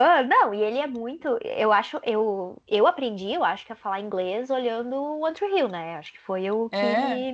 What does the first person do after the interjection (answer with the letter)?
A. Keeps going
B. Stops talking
A